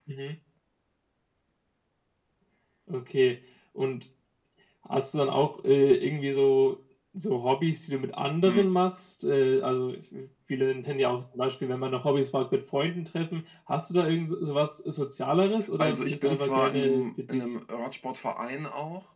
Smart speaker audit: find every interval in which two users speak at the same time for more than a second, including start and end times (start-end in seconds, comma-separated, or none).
15.8-17.4